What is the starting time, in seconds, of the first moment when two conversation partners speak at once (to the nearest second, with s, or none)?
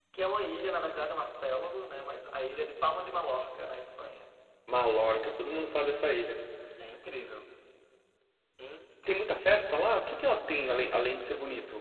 none